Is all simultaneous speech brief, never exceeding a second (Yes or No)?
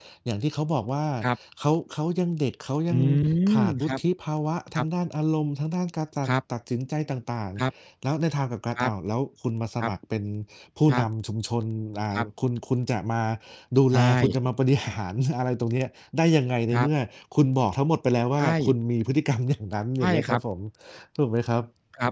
Yes